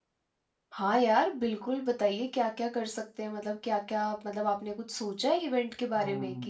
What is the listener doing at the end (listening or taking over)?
taking over